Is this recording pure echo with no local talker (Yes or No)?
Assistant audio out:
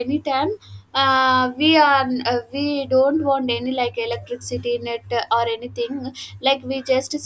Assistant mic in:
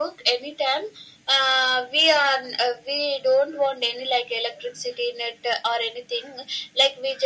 Yes